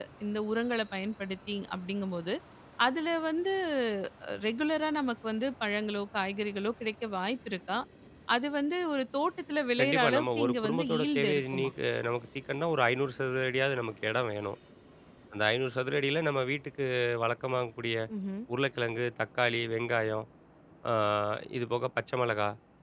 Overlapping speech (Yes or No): Yes